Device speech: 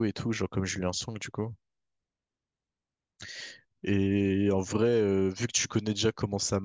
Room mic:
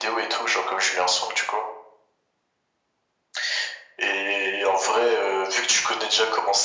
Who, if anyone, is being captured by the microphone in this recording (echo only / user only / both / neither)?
echo only